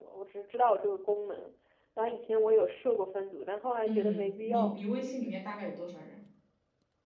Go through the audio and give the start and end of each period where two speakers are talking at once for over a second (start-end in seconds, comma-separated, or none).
3.9-5.3